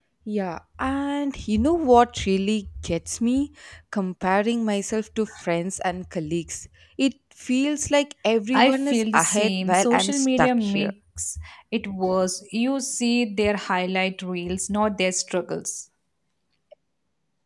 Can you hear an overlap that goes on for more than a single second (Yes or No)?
Yes